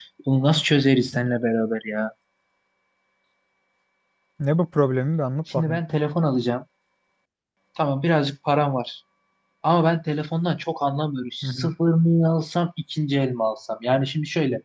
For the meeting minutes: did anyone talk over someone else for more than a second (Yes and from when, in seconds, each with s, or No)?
No